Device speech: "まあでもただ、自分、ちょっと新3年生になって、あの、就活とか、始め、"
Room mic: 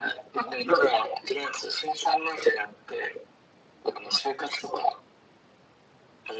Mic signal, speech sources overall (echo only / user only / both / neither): echo only